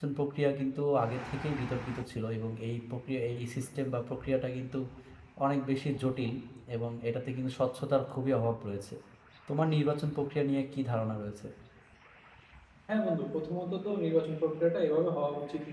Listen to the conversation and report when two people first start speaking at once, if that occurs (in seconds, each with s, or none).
none